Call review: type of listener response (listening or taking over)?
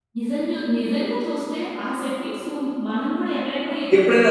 taking over